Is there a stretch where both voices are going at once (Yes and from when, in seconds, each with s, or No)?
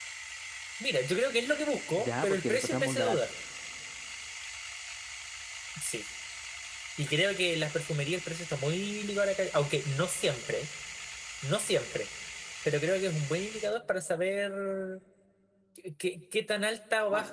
Yes, from 2.0 s